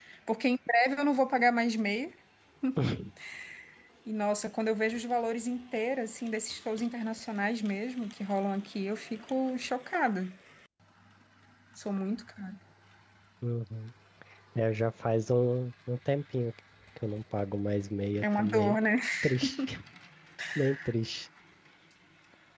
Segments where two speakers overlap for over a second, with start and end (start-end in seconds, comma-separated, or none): none